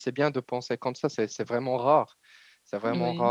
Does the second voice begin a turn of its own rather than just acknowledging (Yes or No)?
No